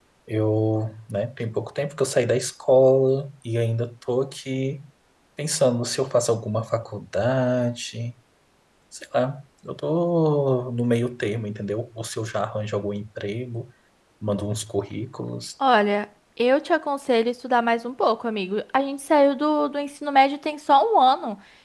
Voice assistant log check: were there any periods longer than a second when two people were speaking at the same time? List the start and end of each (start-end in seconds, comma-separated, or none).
none